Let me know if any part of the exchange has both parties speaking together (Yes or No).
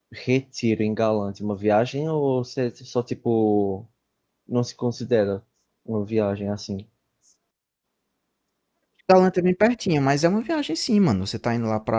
No